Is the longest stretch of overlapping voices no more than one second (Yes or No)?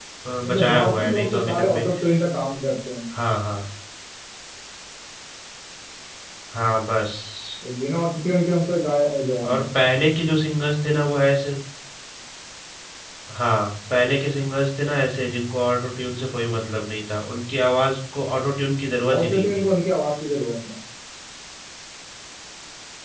No